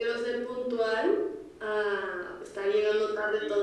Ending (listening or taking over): taking over